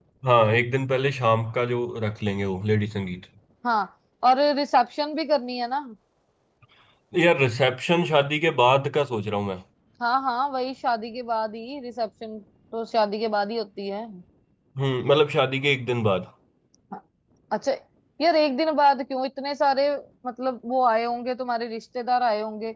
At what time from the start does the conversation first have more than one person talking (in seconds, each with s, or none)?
none